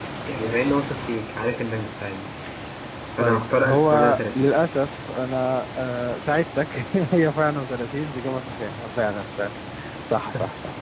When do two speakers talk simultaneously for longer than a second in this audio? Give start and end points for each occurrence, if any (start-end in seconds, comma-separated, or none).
3.2-4.5